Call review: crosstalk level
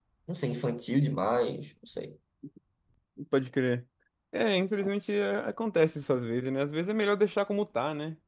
none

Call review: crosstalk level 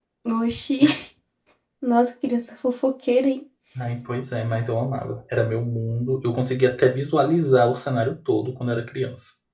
none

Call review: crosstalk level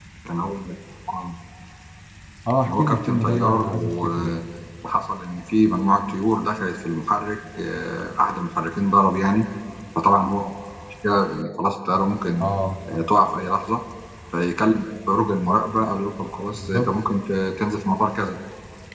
present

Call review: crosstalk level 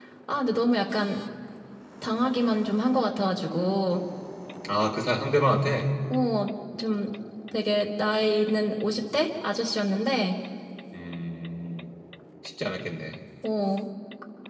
none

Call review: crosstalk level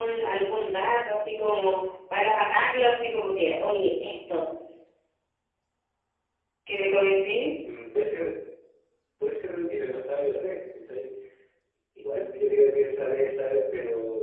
none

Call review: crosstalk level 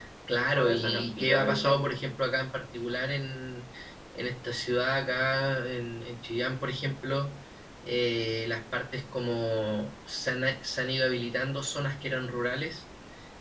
present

